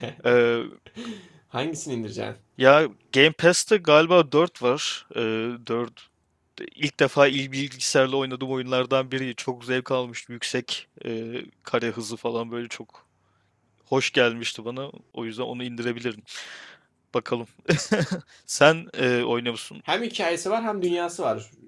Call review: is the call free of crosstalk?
Yes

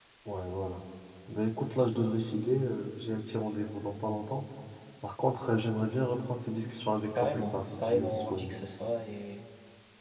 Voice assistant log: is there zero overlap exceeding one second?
No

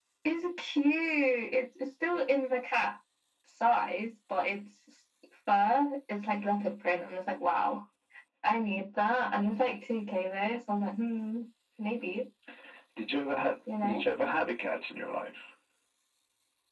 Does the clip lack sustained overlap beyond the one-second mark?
Yes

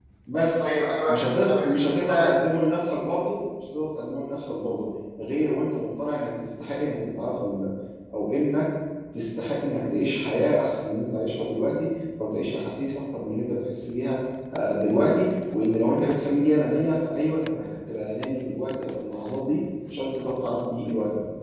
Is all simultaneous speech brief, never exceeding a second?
No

